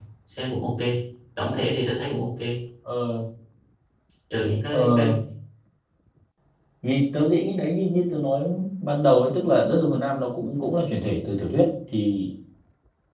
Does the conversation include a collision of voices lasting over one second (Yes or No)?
No